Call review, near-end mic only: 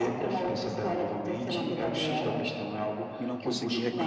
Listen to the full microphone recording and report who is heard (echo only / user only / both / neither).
both